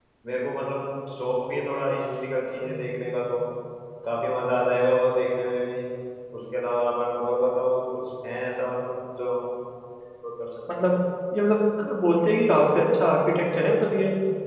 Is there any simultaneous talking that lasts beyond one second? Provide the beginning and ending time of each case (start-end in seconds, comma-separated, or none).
none